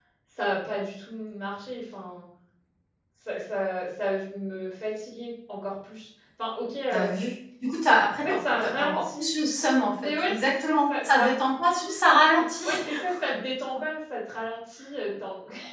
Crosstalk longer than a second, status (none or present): present